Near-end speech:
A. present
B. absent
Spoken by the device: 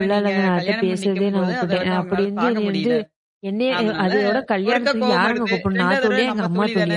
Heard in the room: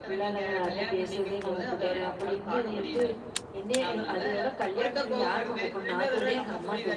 B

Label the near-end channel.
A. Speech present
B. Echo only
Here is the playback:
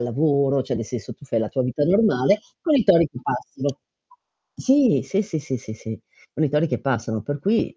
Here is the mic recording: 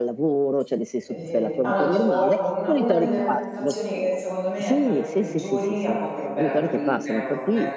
A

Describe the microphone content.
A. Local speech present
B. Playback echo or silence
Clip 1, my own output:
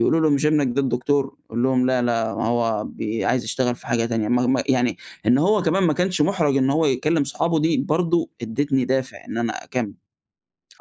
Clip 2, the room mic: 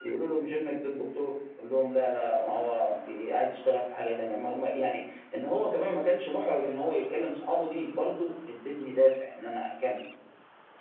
B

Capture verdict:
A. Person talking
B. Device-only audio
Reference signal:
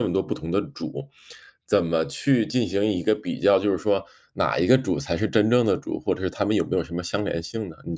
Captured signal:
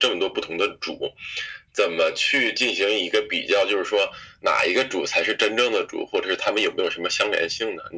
B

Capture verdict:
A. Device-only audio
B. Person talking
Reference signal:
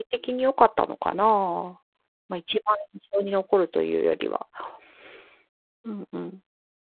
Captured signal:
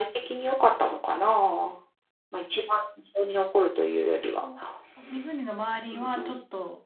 B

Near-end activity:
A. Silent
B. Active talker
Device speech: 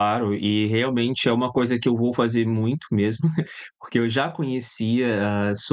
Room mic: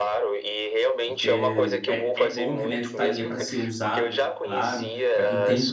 B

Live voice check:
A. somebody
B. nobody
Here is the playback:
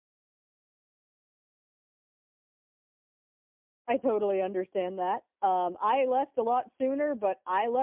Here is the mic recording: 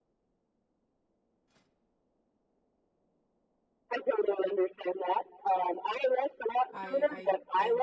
A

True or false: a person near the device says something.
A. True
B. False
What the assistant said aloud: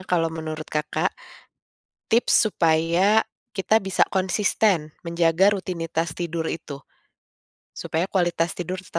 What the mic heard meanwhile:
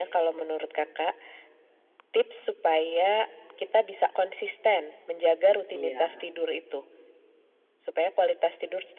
A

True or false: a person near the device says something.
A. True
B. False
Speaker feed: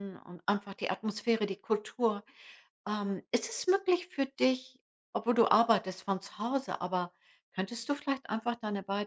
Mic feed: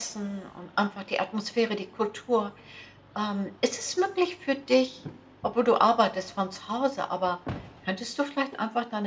B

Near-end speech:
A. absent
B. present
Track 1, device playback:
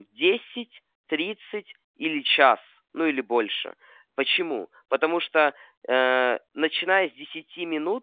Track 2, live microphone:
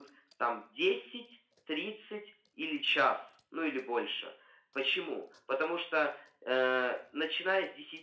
A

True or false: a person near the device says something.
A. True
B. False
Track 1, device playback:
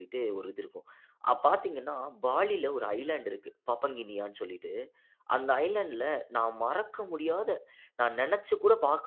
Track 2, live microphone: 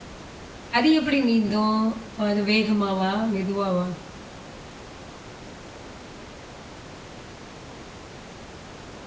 A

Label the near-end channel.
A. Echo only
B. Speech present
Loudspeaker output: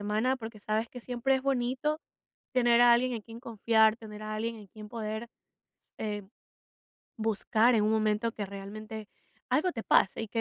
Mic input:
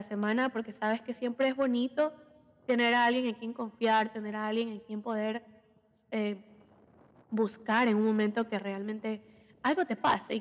A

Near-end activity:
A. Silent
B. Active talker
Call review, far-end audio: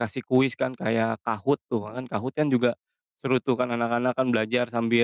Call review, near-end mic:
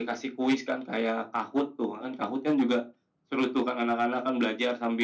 A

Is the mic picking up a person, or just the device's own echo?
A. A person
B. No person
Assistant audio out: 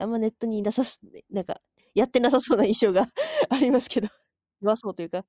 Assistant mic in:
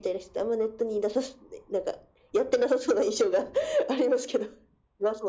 B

